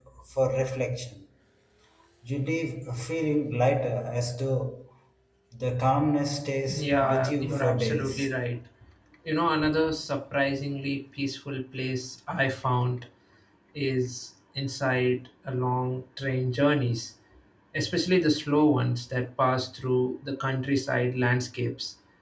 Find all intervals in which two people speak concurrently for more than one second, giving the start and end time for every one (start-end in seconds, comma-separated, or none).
6.7-8.3